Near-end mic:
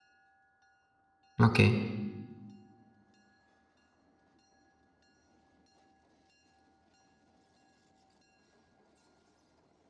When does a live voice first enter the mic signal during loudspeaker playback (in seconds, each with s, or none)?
1.5 s